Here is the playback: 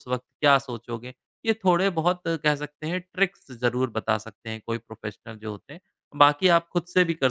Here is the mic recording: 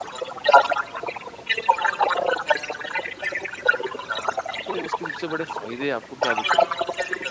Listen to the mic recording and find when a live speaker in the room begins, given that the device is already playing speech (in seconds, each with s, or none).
4.7 s